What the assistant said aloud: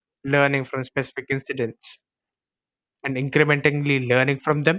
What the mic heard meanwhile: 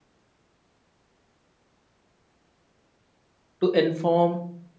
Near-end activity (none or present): present